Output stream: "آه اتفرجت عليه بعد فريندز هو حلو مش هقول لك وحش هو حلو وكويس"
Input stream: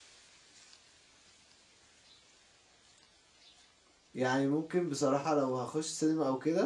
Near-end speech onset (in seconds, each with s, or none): 4.1 s